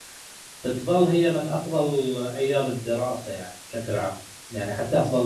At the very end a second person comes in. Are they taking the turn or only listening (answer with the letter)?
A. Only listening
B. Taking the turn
A